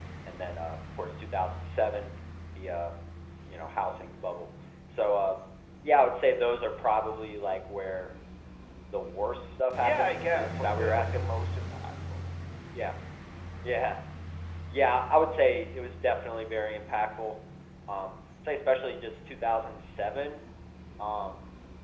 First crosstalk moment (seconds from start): 9.8 s

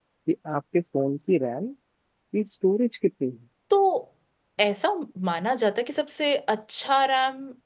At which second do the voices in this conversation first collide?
none

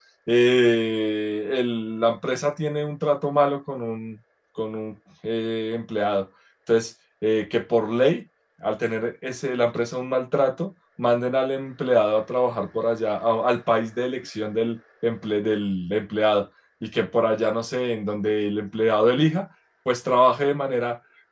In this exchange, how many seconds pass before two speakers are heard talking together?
none

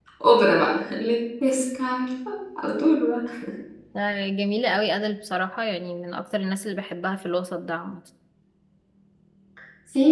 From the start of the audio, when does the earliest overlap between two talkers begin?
none

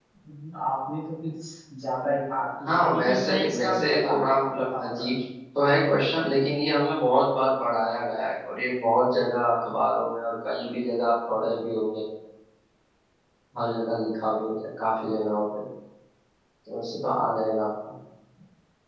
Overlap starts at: 2.6 s

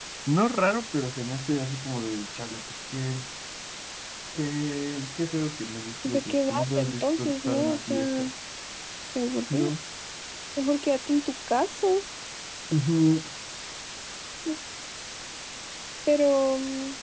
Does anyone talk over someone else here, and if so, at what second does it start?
6.0 s

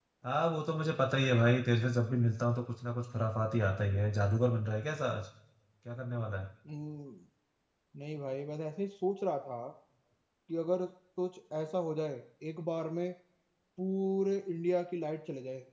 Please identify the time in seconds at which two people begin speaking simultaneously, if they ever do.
none

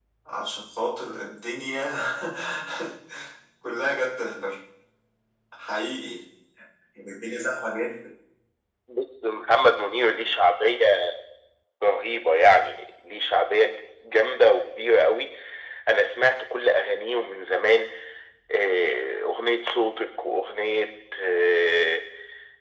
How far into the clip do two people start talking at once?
none

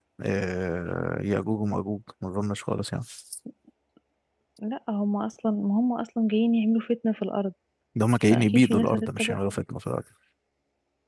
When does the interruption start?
8.3 s

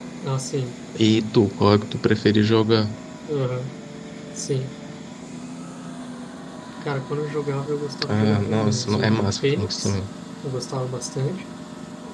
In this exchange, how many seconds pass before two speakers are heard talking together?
8.0 s

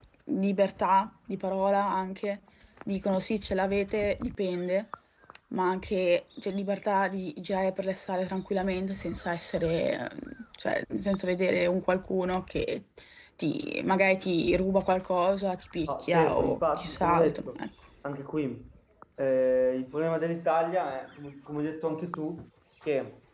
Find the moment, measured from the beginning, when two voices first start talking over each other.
15.9 s

